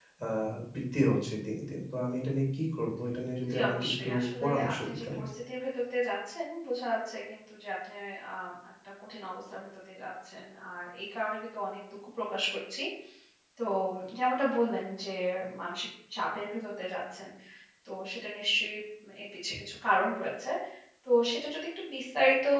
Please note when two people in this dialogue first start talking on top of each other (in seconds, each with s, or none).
3.4 s